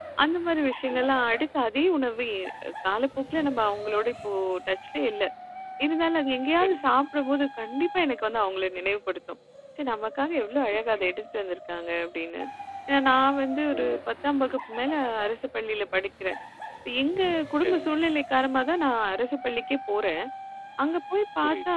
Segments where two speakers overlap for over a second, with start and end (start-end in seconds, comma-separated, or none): none